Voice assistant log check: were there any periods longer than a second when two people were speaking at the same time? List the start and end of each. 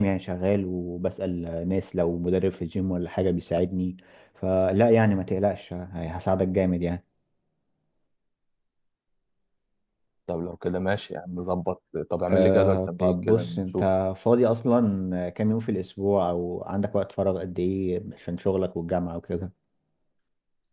12.3-13.8

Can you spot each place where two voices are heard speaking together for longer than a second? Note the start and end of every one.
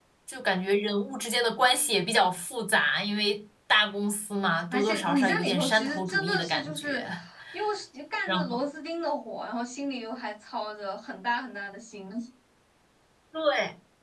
4.7-7.0

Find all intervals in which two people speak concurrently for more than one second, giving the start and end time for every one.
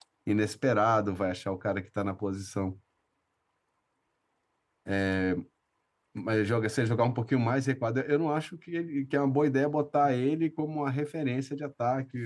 none

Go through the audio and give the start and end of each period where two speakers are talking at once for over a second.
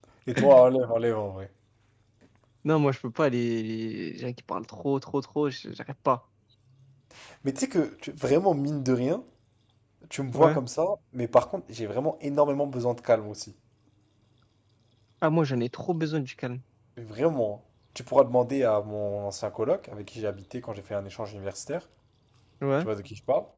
none

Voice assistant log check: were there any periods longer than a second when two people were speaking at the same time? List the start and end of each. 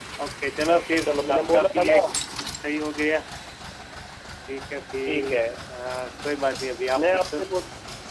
0.7-2.0

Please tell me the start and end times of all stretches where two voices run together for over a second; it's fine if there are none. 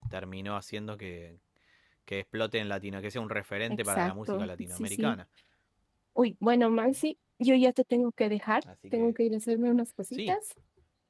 3.7-5.2

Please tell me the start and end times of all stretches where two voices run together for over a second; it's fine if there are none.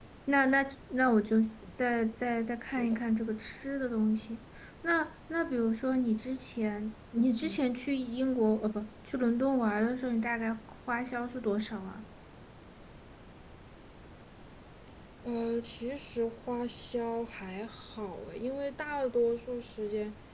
none

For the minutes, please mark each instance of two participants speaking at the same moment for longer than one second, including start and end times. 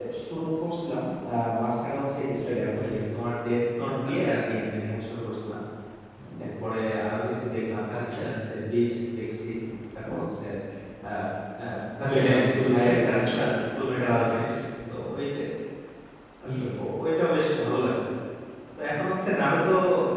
12.0-13.5

